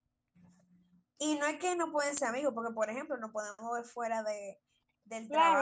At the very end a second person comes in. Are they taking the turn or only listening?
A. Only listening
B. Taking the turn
B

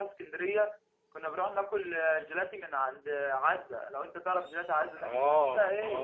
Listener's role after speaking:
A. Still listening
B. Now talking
B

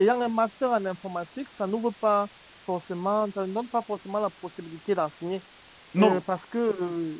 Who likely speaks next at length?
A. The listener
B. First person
B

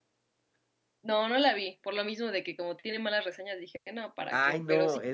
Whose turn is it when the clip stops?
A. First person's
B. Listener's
B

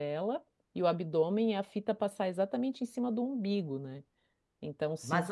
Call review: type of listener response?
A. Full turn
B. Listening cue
A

